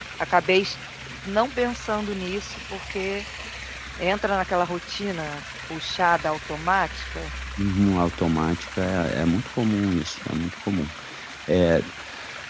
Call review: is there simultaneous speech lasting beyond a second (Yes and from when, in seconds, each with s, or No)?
No